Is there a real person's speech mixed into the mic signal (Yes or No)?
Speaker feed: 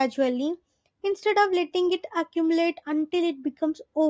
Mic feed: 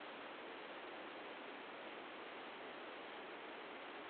No